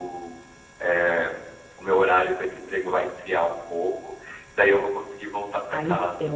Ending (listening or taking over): taking over